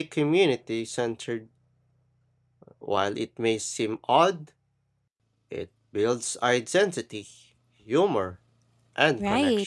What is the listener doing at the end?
taking over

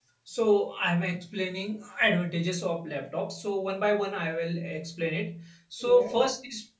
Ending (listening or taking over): listening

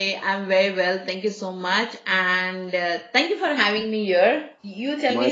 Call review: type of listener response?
taking over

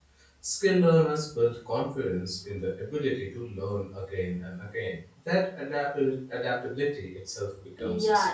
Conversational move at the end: taking over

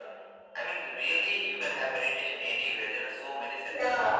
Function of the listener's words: taking over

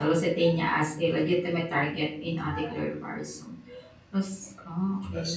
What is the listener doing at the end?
listening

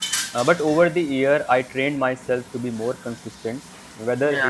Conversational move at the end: listening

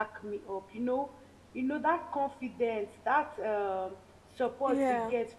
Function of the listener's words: listening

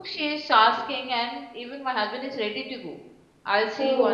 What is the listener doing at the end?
listening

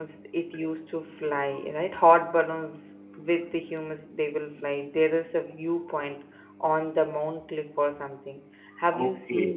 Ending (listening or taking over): taking over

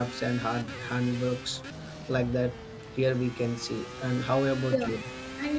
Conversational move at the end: taking over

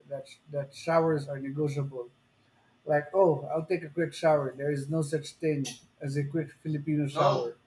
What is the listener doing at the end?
taking over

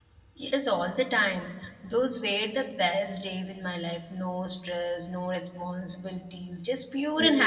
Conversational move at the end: taking over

